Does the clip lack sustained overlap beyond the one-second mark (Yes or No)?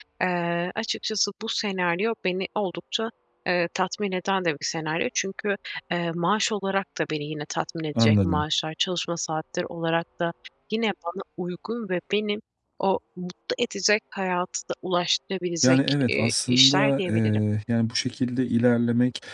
No